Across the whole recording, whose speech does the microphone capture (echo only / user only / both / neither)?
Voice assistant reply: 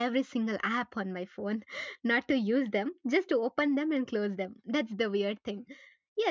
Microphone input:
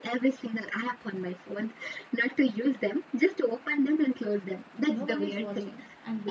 both